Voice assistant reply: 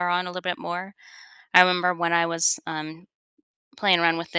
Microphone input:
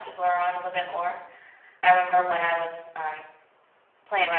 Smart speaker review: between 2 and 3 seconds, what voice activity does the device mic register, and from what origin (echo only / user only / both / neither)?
both